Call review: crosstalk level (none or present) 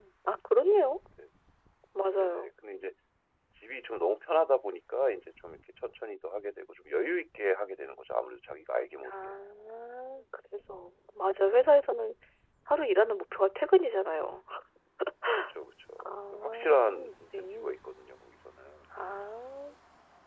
present